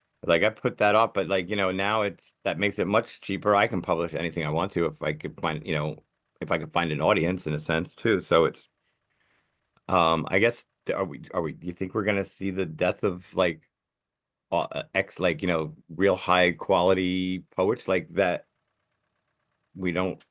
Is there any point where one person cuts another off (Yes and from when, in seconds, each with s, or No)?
No